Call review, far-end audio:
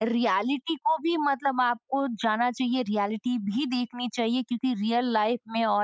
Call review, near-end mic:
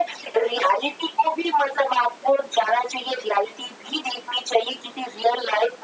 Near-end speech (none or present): none